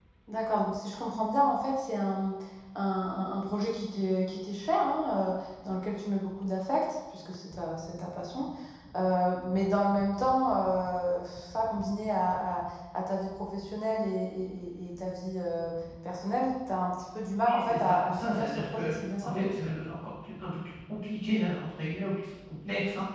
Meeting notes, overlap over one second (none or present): present